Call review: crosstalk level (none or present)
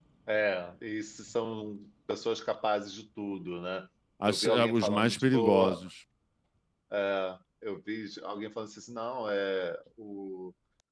present